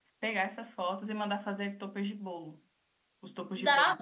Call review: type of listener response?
taking over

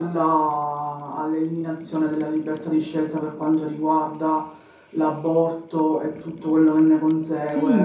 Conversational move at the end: taking over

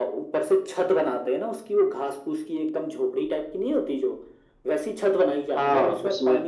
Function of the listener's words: listening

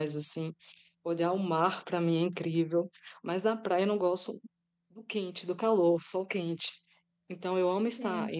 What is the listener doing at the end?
listening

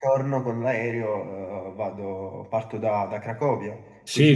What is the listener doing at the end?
taking over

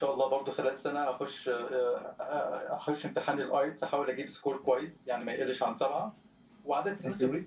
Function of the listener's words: listening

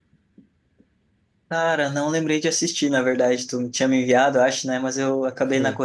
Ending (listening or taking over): listening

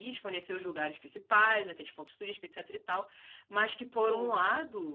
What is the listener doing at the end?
listening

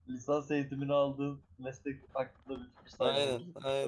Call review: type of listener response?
taking over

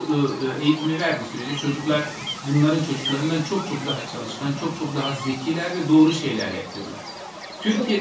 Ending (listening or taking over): listening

